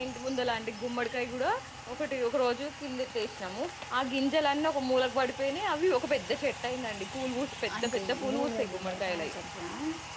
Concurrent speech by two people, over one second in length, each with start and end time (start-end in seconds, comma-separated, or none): 7.8-9.3